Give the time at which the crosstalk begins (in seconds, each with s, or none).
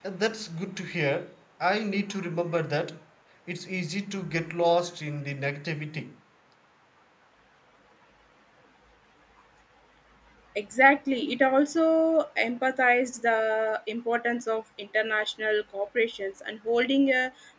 none